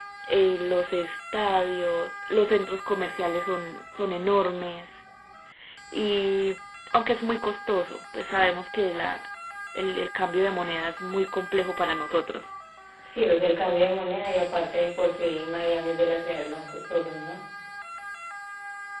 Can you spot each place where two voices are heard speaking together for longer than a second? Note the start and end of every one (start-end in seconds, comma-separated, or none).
none